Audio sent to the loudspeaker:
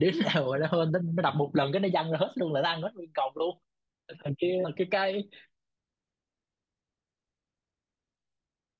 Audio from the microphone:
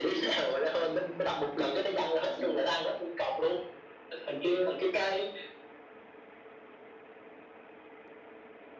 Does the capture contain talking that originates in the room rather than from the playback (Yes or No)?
No